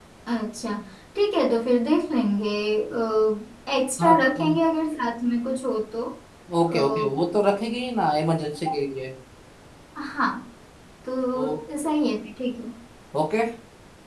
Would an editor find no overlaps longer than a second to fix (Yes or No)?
Yes